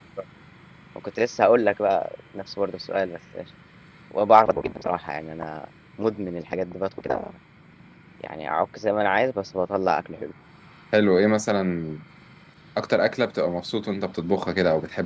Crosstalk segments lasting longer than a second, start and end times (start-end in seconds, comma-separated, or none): none